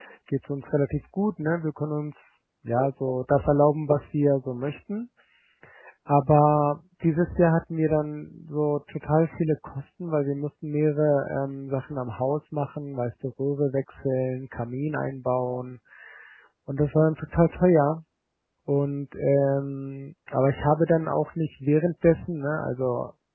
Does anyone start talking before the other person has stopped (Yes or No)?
No